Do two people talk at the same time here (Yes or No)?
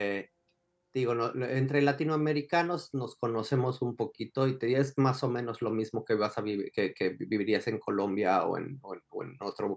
No